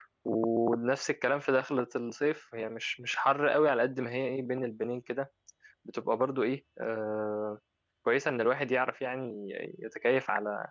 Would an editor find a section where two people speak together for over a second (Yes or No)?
No